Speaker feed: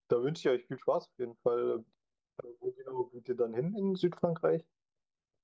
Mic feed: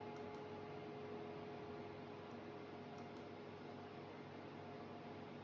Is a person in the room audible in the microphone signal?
No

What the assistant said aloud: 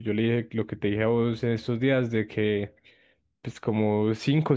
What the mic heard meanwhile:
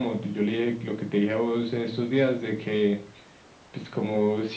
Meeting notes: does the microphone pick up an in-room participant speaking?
No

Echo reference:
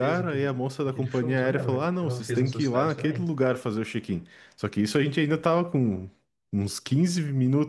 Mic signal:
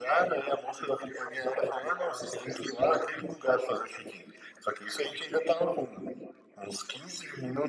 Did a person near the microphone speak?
No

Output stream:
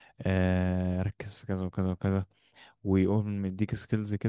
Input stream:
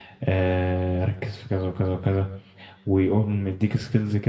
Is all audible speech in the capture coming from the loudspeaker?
Yes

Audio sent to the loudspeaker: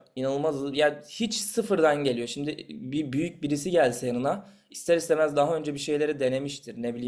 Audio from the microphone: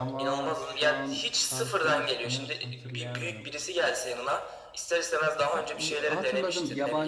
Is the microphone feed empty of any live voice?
No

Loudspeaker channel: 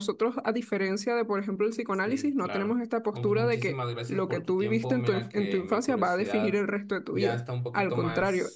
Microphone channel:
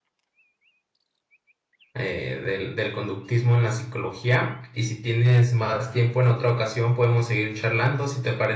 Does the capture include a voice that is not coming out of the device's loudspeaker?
Yes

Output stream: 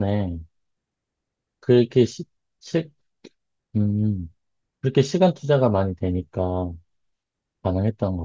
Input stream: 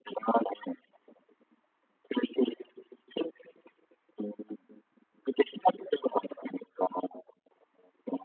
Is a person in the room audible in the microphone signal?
No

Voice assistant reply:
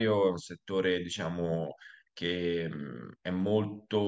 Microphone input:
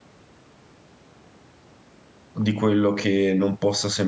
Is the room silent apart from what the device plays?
No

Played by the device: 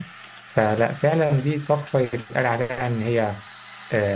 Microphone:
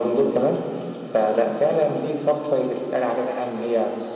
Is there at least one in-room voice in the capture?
No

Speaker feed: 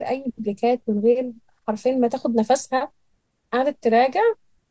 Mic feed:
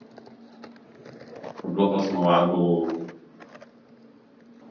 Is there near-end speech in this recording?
Yes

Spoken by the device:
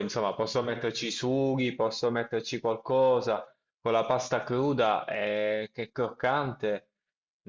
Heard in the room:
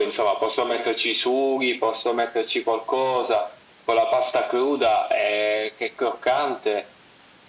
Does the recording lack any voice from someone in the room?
Yes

